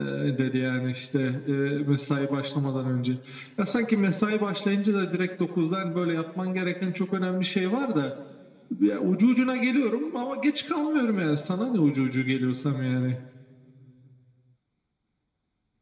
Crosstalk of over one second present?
No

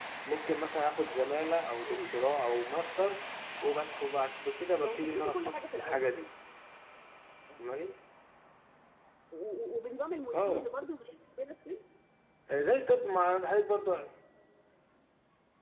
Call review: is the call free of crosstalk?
No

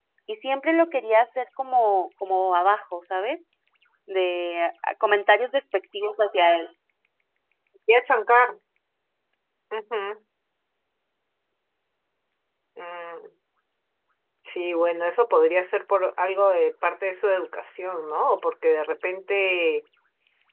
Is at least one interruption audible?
No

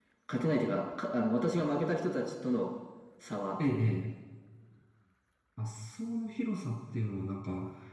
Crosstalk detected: No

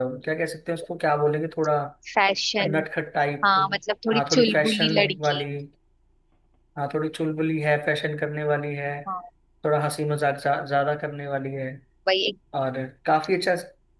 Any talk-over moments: Yes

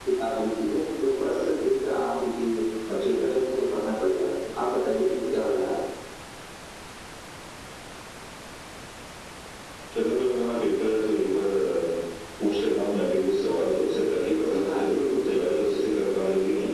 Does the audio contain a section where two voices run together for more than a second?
Yes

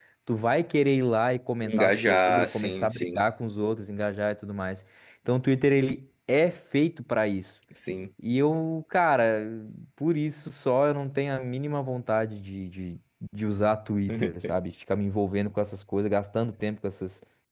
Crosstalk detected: Yes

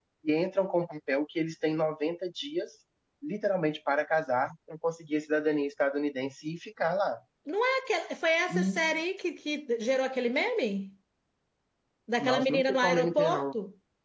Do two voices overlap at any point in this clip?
Yes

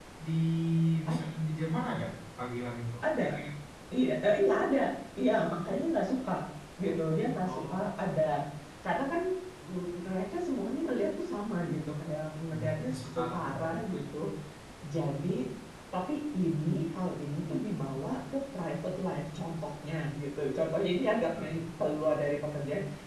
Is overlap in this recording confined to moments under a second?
No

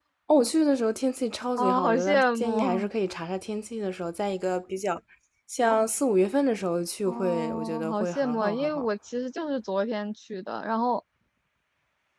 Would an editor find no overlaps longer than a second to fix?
No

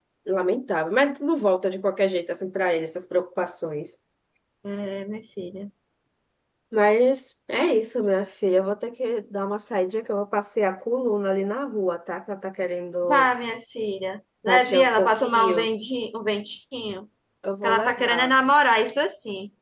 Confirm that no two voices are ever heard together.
No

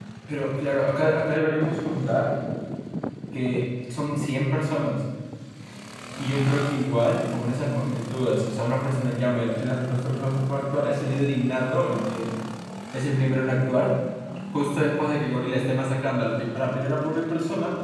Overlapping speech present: No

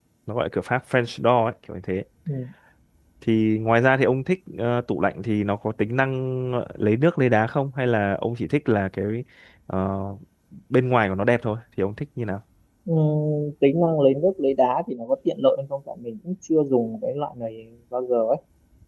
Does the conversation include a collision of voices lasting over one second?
No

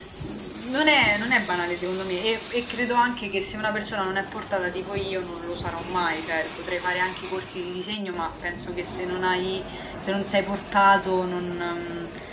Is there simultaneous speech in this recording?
No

